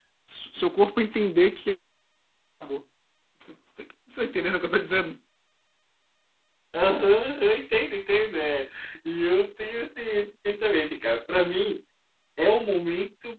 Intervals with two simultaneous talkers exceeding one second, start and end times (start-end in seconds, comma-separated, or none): none